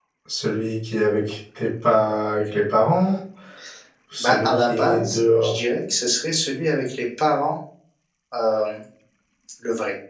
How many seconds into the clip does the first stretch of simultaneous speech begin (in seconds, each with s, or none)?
4.2 s